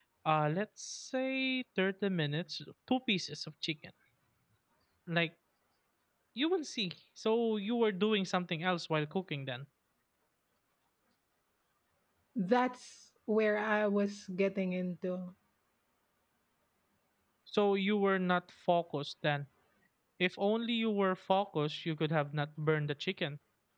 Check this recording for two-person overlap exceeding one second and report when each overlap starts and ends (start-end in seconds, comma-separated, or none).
none